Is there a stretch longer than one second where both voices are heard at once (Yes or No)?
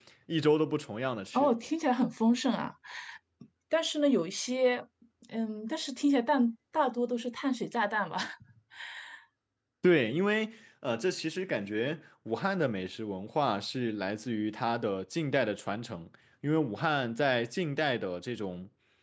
No